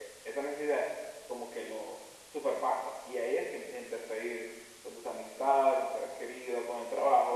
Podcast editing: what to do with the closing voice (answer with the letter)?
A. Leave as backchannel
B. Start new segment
B